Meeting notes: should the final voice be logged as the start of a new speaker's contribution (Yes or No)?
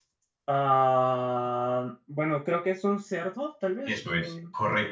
Yes